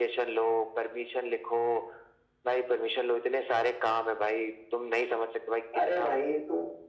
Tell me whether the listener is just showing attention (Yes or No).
No